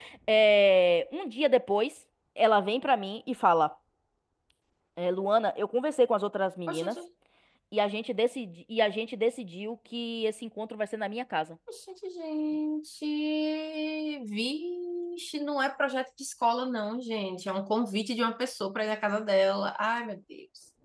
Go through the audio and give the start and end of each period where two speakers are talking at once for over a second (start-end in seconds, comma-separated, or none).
none